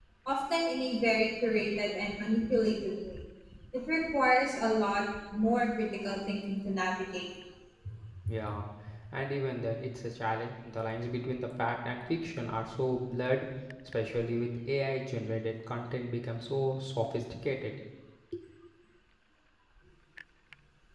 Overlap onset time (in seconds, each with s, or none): none